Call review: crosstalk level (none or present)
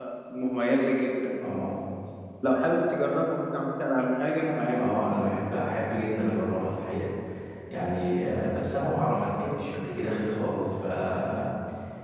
none